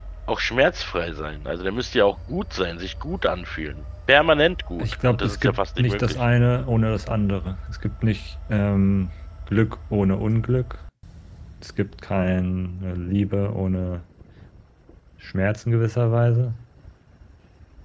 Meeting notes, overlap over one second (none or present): present